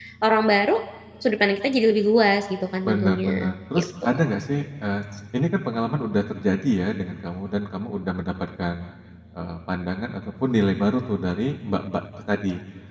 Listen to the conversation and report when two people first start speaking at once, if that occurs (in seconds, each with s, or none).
2.8 s